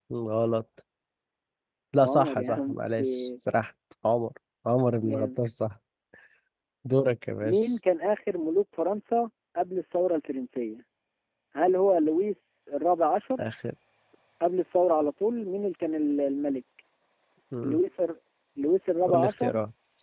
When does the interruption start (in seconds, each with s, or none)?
2.0 s